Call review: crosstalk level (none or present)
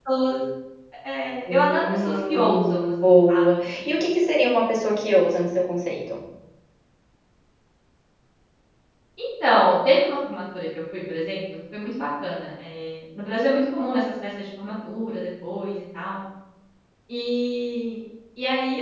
present